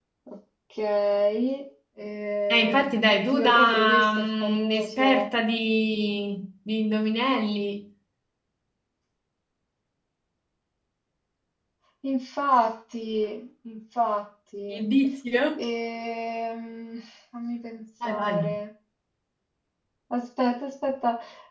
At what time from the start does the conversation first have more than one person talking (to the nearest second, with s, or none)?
2 s